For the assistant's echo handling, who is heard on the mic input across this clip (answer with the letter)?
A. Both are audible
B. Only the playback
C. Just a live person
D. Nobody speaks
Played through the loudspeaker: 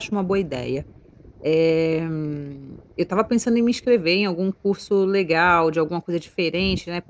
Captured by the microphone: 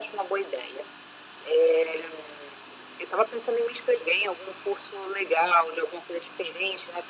B